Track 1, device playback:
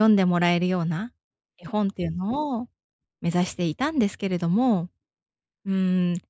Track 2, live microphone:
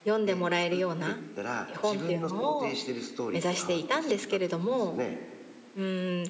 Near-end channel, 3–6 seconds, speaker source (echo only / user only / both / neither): both